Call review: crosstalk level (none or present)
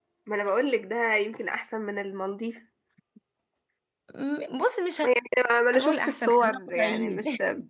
present